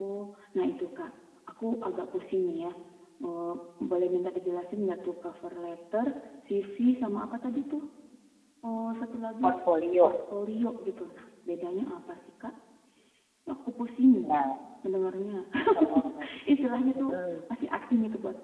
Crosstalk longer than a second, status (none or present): none